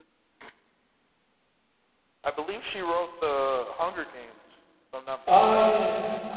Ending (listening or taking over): taking over